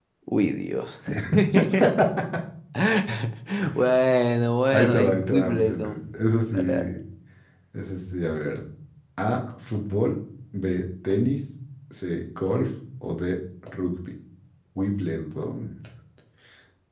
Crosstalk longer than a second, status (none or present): present